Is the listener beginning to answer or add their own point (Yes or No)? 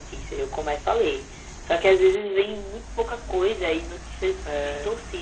No